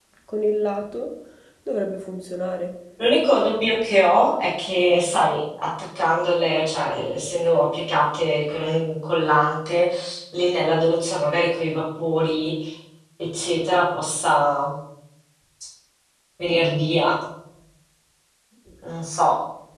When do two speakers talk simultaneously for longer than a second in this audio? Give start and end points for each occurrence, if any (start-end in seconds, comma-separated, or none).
none